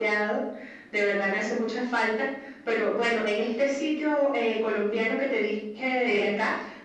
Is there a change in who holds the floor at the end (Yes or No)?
No